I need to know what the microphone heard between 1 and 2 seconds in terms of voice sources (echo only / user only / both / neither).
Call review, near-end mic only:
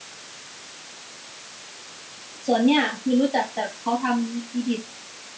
neither